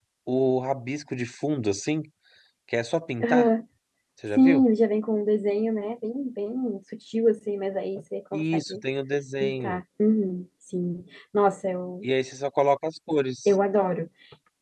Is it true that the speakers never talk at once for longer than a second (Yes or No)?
Yes